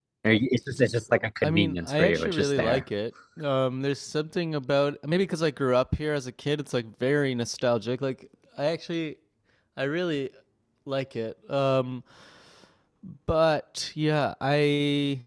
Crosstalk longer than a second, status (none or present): present